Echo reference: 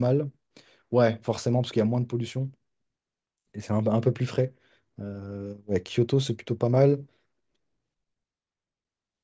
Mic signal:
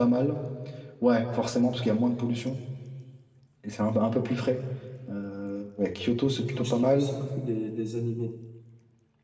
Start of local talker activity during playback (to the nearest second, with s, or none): 6 s